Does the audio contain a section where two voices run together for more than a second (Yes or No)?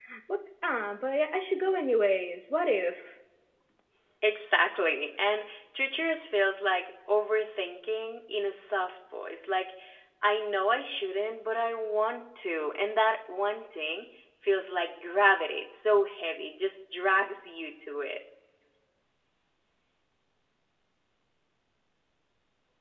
No